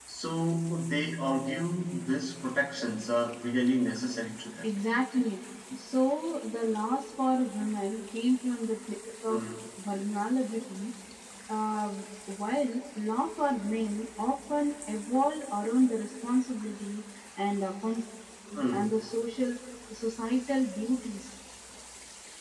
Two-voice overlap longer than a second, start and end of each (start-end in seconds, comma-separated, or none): none